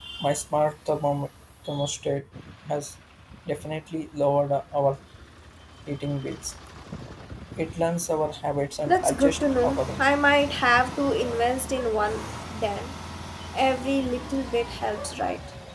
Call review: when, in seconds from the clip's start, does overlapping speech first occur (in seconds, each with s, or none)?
8.9 s